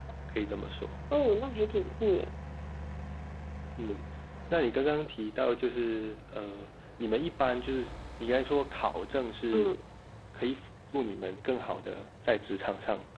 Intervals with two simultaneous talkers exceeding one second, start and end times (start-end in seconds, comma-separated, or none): none